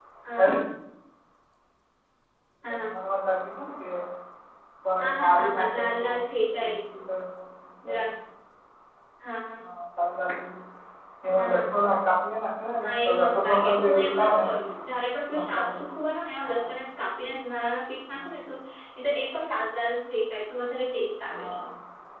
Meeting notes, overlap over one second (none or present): present